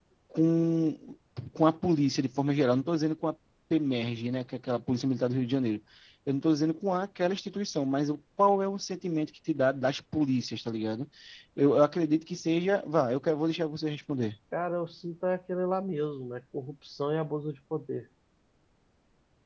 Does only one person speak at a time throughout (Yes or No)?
Yes